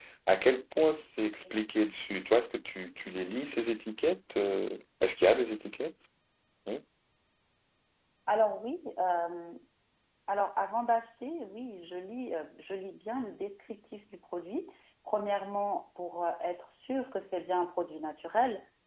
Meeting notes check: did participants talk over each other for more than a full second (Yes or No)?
No